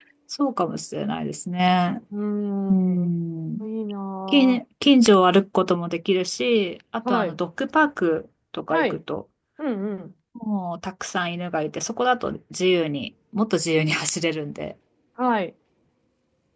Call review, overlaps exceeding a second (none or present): none